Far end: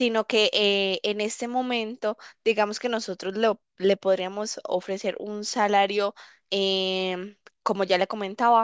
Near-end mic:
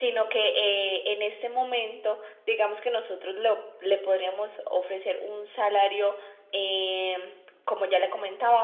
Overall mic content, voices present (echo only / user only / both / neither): echo only